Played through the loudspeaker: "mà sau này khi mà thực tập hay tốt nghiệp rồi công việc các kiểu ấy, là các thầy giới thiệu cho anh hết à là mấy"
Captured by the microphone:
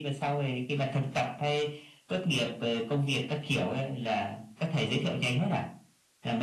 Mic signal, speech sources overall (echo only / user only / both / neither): echo only